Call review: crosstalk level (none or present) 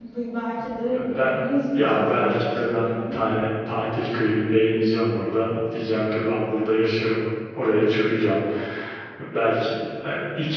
present